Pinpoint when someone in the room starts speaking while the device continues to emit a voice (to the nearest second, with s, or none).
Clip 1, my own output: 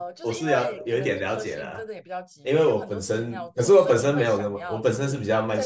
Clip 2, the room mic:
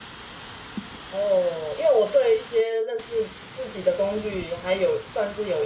1 s